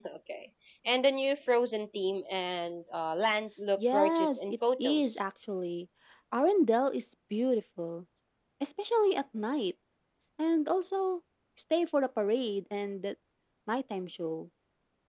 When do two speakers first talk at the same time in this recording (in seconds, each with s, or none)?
3.8 s